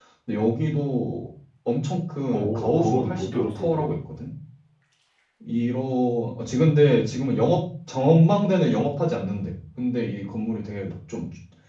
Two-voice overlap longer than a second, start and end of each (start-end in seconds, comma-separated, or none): 2.3-3.8